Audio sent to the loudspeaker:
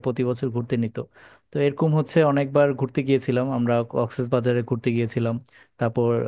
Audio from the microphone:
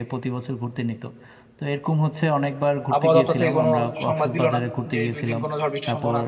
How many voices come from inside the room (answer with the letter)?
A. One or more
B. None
A